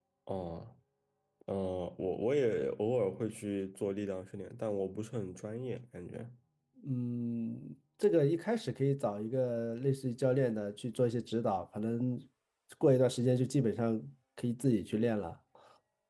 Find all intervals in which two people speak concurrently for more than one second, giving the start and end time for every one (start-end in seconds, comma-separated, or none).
none